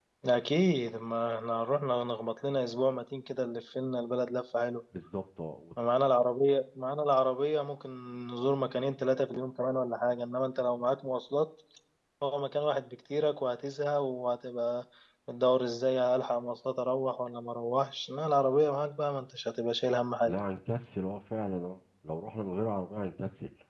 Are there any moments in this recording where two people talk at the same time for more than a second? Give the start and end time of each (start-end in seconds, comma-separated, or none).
none